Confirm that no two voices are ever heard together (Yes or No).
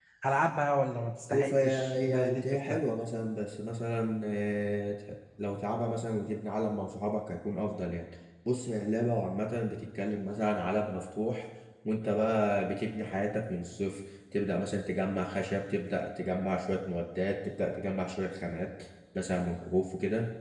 No